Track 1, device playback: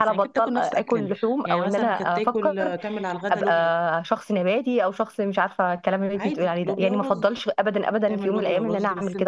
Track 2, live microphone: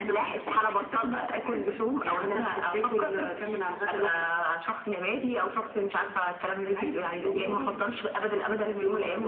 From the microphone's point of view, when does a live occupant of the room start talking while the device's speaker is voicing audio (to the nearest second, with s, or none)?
none